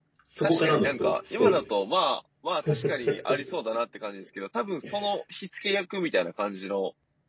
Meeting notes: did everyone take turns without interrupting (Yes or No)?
No